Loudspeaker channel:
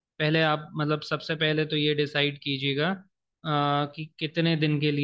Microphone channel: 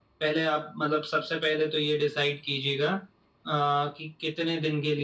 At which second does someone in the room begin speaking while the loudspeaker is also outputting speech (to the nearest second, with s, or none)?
none